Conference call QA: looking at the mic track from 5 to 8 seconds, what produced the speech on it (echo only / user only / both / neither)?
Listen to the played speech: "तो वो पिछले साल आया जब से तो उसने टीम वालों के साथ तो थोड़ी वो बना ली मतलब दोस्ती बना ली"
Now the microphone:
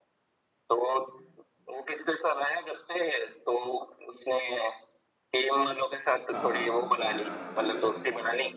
both